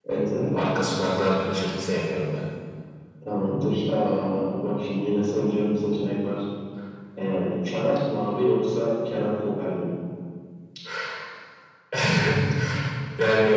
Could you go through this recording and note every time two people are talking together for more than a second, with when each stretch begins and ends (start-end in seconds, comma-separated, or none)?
none